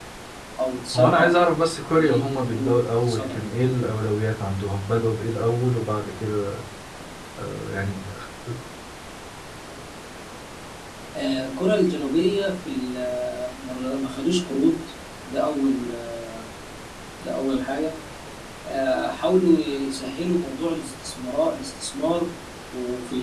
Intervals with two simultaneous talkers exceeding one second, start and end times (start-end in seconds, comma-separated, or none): 1.9-3.5